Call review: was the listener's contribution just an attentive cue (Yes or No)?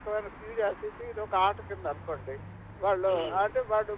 Yes